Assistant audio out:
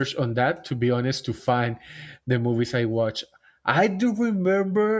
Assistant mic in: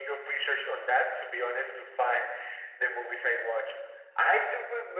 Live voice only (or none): none